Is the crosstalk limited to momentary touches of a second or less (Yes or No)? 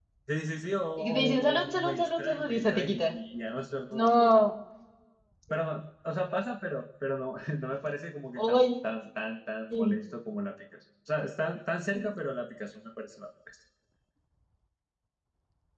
No